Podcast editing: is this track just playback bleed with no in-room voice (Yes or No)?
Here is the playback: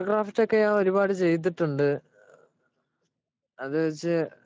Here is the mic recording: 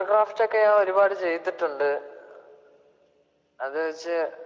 Yes